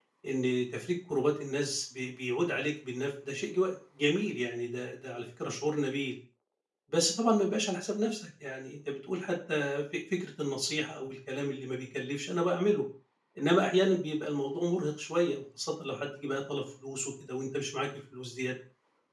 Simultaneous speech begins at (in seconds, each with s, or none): none